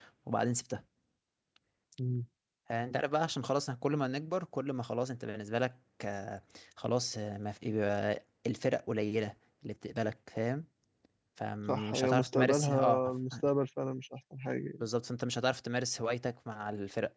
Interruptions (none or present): present